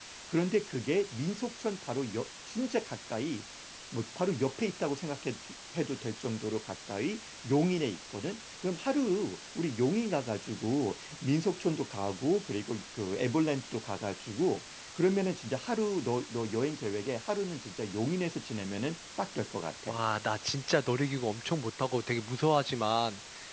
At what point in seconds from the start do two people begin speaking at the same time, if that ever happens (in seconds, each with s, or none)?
none